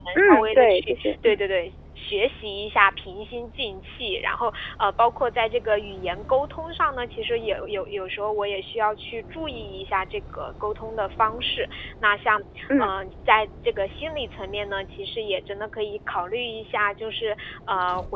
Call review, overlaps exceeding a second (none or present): present